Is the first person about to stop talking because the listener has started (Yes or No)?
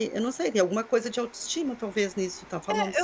Yes